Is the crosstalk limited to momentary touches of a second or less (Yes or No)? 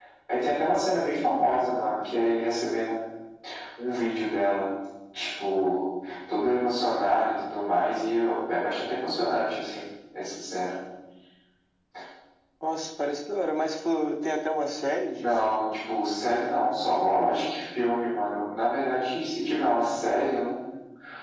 Yes